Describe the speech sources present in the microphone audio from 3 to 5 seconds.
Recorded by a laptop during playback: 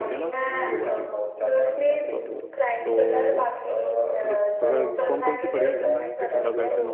both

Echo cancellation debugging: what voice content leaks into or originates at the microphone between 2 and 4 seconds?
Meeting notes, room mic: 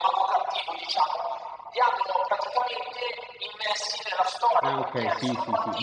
echo only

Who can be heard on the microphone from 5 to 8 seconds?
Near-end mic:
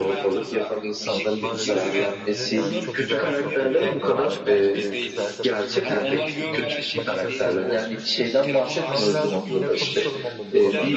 both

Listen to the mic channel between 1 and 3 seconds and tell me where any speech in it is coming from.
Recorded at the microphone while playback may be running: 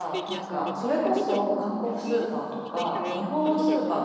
both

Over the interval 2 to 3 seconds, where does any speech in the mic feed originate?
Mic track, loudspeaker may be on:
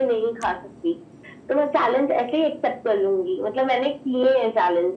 echo only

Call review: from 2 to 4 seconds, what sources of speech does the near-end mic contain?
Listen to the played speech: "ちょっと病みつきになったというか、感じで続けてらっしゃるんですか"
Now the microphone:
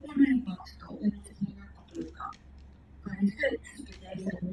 echo only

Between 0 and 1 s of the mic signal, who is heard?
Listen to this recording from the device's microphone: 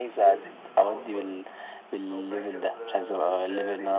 both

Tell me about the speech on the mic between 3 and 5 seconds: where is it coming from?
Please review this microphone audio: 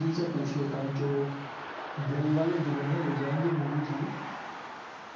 echo only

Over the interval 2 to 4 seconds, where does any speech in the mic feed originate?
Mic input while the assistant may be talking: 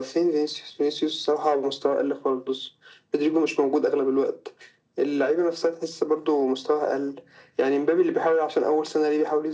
echo only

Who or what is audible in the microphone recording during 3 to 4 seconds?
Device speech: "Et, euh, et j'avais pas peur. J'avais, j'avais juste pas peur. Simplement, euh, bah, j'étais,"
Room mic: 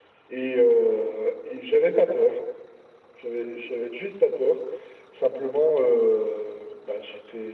echo only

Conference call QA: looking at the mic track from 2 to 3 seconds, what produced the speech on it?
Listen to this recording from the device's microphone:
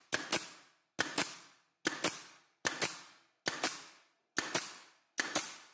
neither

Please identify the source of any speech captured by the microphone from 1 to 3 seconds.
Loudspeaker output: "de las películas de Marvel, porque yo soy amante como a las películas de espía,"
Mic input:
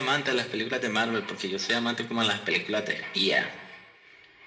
echo only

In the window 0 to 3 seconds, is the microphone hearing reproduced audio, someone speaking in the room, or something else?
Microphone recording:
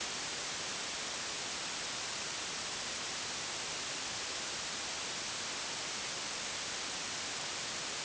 neither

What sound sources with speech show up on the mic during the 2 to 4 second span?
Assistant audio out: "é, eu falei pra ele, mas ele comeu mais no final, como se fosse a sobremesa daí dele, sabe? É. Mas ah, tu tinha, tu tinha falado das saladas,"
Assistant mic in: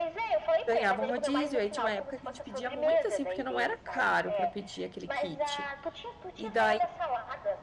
both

